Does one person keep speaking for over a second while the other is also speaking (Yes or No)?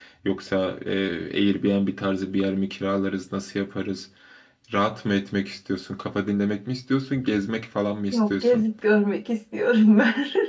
No